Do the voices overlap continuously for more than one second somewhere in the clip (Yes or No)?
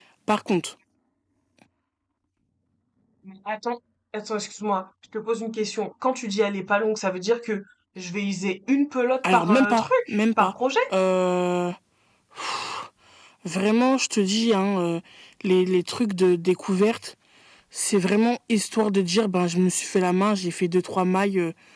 Yes